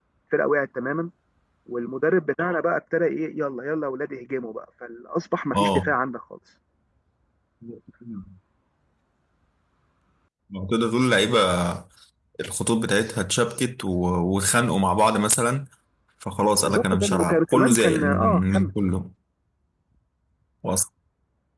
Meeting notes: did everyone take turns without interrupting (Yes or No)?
No